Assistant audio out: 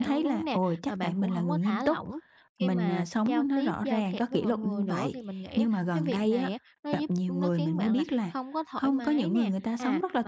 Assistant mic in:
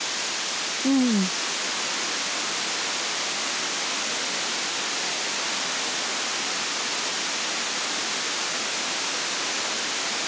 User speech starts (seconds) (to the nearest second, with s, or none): 1 s